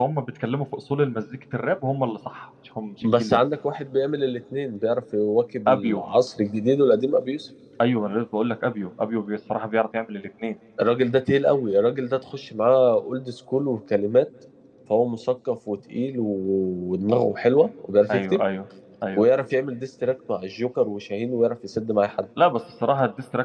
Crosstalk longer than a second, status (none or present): none